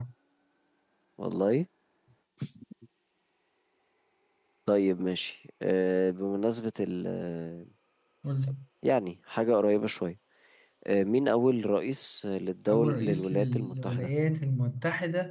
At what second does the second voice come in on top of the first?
12.7 s

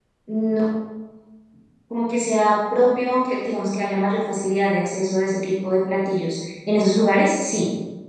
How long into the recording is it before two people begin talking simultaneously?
none

